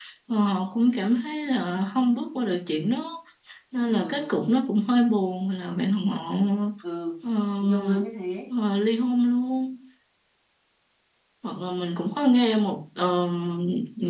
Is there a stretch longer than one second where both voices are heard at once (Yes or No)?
No